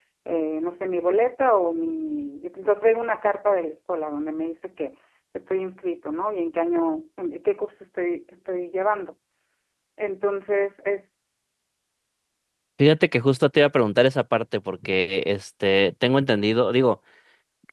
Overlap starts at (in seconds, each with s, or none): none